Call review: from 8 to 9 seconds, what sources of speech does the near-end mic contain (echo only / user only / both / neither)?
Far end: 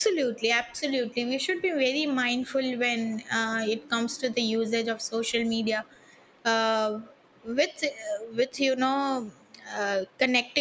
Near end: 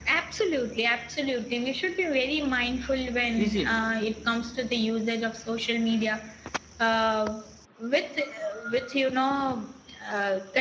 echo only